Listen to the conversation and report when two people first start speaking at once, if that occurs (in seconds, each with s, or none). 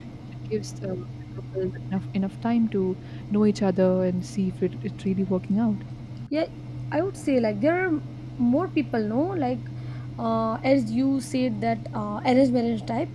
none